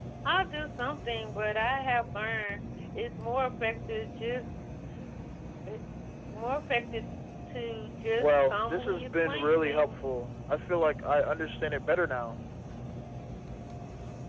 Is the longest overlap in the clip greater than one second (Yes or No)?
Yes